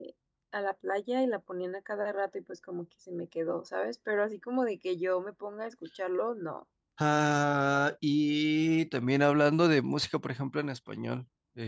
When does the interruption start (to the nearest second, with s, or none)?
none